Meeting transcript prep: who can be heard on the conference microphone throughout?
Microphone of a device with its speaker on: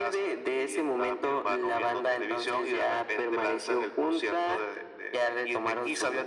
echo only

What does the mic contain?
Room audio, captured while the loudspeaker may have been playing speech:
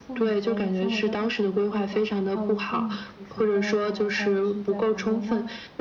both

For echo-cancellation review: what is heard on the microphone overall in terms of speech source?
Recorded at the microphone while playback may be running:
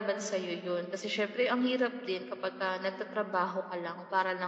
echo only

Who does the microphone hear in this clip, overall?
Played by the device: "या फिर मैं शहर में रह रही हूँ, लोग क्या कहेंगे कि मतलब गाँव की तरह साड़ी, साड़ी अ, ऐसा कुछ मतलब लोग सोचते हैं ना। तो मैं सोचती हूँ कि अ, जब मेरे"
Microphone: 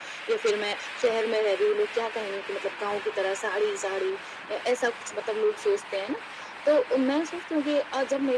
echo only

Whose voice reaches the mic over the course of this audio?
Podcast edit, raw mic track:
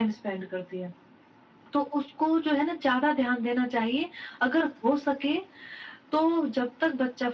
echo only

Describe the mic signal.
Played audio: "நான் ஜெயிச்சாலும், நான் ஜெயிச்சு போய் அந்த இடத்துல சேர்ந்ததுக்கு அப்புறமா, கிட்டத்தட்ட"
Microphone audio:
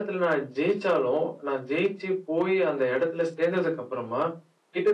echo only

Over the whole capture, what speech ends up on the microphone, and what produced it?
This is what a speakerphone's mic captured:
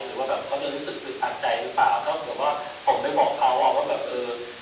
echo only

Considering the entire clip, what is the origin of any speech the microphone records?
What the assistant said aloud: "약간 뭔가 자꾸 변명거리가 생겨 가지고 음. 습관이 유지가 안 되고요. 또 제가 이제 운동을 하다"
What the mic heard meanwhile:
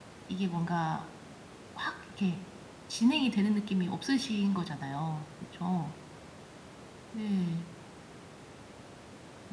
user only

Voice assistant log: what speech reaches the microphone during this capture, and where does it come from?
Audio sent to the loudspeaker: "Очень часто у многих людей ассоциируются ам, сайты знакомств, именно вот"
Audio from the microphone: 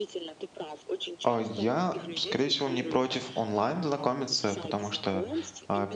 both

